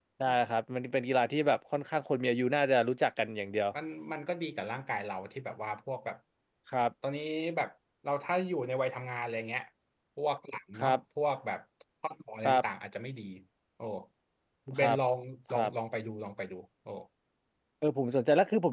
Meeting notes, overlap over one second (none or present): none